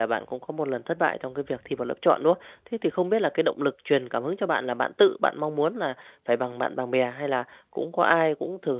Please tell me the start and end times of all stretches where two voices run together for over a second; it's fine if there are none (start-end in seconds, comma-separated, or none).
none